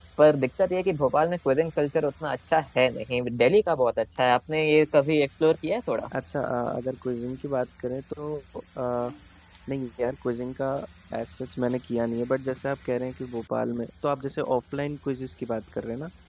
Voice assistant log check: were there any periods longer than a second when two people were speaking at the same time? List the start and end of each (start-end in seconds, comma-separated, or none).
none